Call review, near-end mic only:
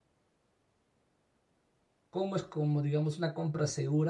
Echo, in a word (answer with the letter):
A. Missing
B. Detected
A